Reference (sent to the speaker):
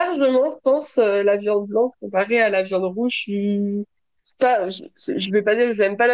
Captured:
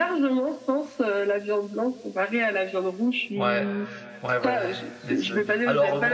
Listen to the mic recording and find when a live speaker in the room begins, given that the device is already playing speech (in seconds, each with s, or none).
3.3 s